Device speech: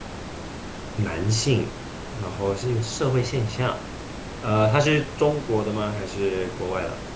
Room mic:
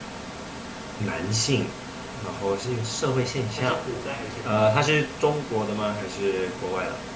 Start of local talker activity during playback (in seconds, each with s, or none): 3.5 s